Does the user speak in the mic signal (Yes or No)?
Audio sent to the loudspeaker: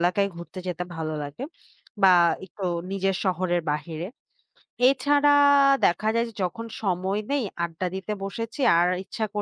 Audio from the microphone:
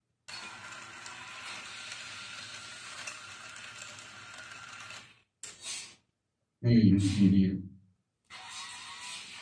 Yes